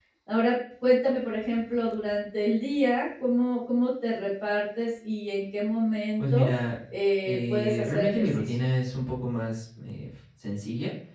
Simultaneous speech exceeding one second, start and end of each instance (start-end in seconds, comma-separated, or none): 7.2-8.6